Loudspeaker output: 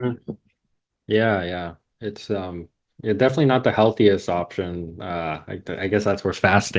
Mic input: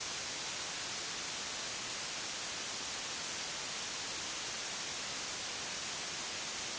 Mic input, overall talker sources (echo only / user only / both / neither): neither